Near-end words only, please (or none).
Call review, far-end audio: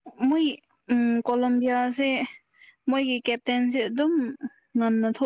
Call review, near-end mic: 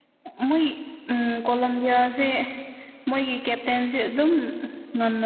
none